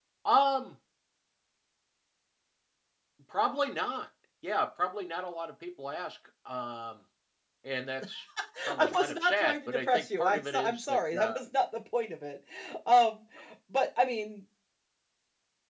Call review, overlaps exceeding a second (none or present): present